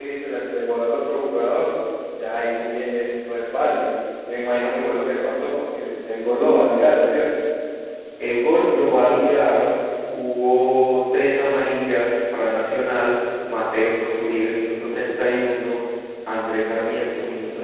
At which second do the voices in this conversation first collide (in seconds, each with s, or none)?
none